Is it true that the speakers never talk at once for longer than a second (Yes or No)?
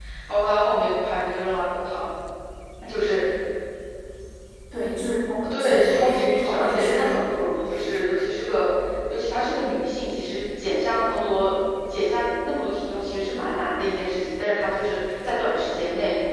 No